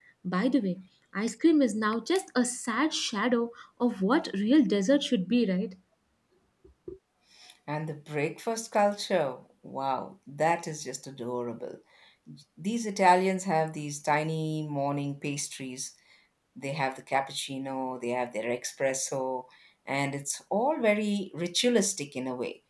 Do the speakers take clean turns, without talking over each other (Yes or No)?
Yes